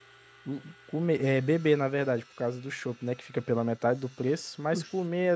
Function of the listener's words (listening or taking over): listening